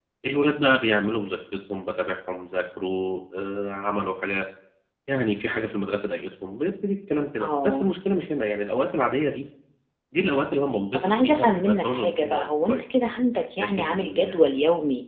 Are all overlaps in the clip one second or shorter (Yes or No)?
No